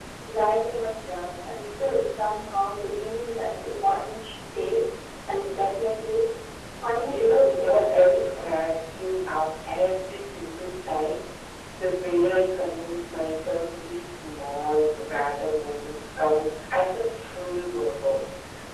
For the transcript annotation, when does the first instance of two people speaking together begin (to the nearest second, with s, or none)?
7 s